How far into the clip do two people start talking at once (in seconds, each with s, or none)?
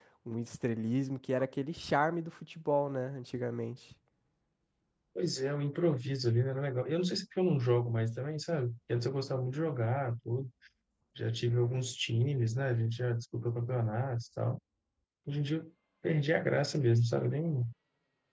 none